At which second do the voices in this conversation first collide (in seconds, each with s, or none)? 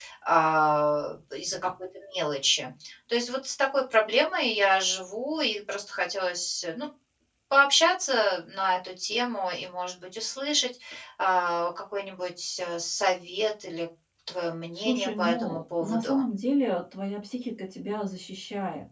14.8 s